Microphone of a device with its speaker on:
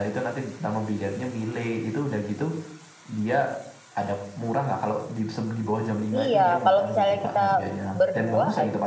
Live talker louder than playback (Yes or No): Yes